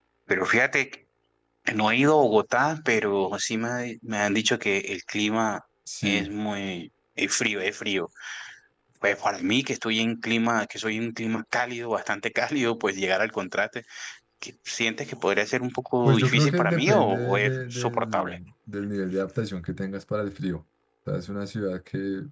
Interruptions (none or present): present